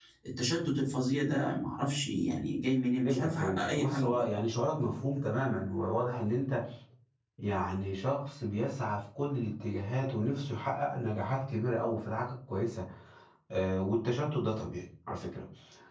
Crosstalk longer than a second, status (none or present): present